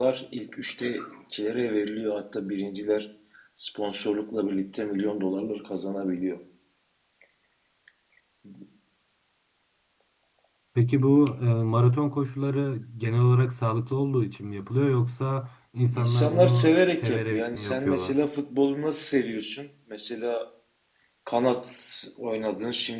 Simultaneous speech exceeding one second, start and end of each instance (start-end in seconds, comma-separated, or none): 15.9-18.2